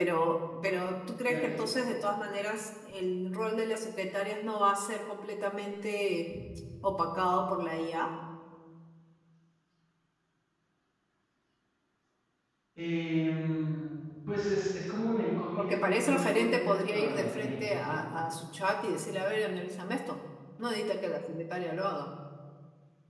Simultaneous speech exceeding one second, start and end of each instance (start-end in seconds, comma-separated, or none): 15.6-18.0